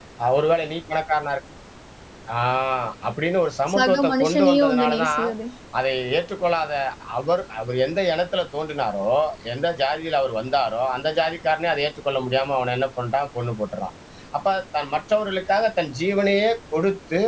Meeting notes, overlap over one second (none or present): present